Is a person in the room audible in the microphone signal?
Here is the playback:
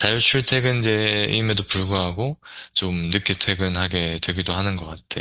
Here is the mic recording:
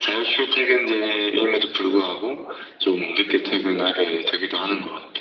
No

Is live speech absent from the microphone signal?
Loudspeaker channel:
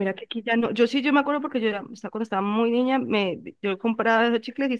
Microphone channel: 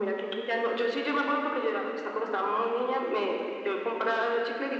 Yes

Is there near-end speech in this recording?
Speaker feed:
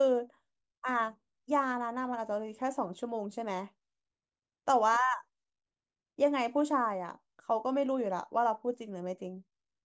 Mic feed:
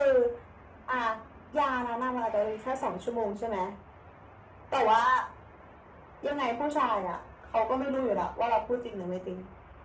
No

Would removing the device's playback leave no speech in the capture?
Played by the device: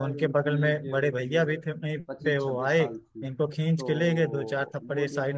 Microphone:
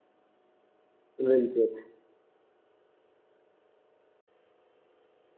No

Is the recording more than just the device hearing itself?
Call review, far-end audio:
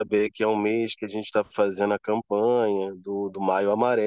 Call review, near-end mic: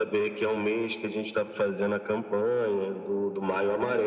No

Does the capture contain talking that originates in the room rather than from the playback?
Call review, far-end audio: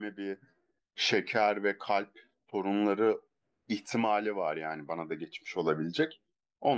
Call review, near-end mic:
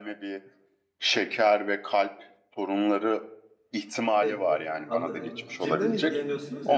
Yes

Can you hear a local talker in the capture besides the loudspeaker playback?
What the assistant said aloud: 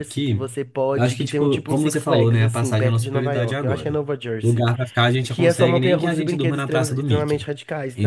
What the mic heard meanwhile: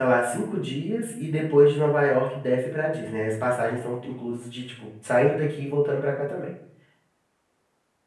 Yes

